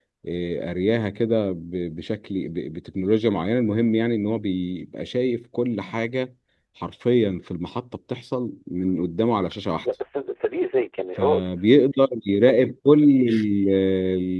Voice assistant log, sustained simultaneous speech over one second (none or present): none